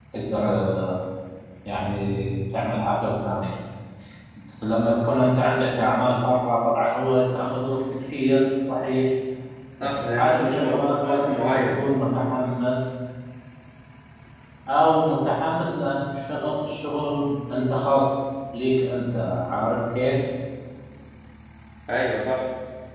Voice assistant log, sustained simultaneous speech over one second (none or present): present